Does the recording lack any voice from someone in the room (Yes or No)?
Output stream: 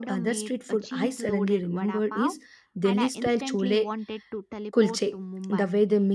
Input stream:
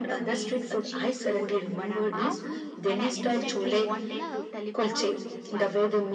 No